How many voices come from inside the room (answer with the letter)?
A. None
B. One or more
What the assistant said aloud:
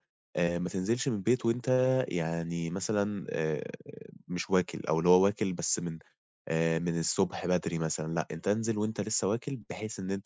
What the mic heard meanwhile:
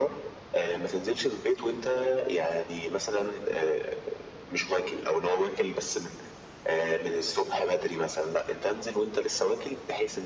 A